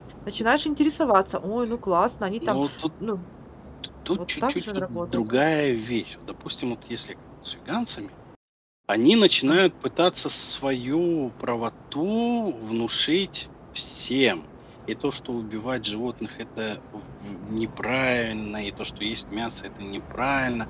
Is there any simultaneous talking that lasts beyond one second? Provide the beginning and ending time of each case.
4.1-5.4

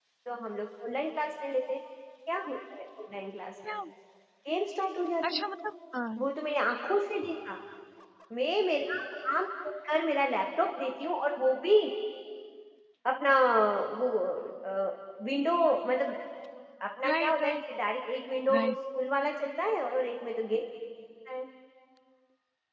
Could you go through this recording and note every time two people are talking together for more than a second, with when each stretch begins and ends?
none

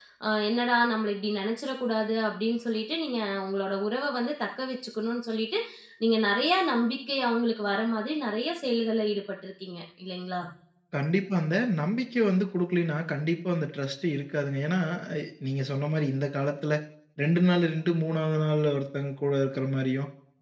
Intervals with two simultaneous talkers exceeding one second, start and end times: none

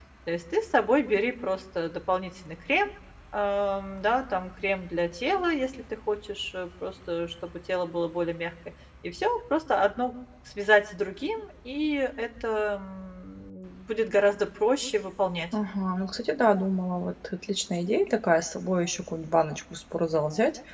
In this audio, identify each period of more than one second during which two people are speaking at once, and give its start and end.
none

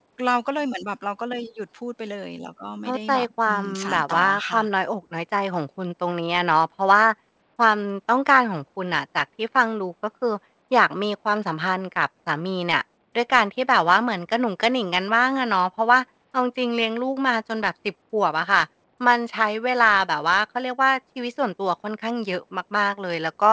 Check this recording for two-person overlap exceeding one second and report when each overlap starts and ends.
2.8-4.6

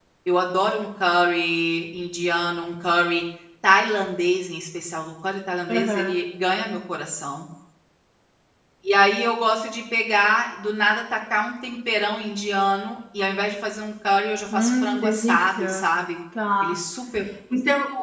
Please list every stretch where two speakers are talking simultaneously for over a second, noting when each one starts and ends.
14.5-15.8

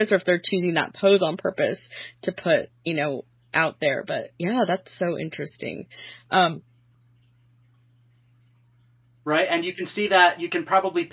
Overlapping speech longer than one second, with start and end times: none

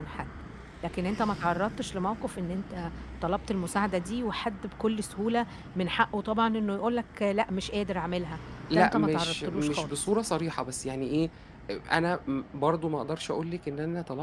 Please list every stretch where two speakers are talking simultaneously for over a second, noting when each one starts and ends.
8.7-10.0

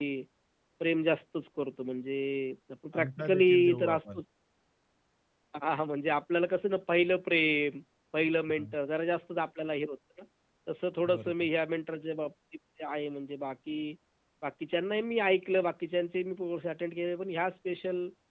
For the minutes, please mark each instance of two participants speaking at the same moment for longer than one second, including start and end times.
3.0-4.2

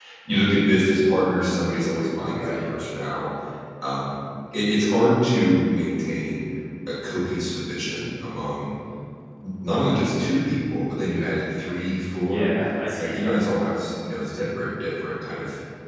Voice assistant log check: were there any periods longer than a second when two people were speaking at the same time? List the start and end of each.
none

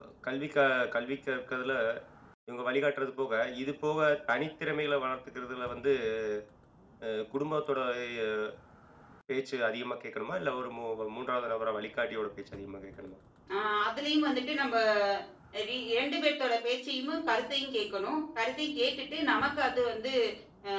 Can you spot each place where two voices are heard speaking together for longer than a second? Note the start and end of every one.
none

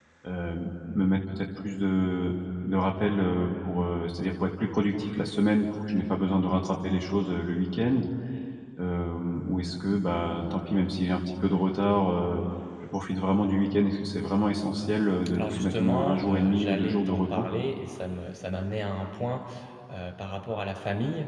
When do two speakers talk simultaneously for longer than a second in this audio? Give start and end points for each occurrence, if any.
15.3-17.4

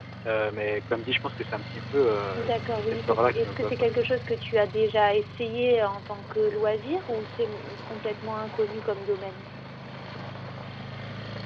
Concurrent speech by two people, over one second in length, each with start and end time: 2.4-3.7

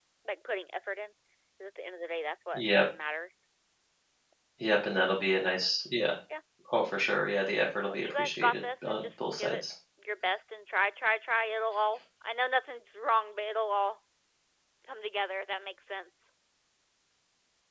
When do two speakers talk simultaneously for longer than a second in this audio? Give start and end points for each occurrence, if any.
7.9-9.6

